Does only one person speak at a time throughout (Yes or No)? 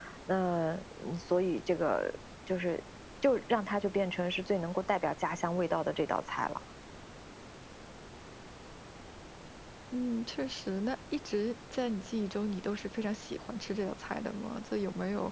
Yes